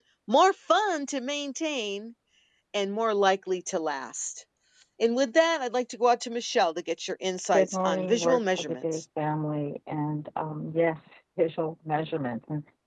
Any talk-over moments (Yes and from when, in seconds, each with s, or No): Yes, from 7.5 s